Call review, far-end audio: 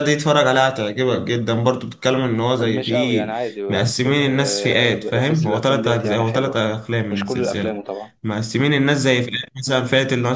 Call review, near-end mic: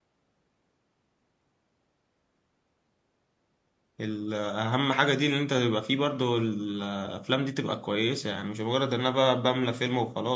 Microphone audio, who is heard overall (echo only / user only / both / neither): user only